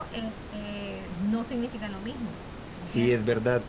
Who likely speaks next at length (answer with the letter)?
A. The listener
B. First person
A